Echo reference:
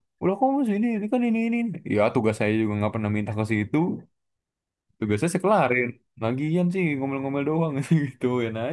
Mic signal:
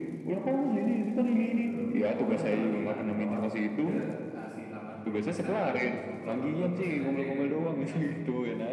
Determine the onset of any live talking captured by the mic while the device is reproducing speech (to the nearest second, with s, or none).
1 s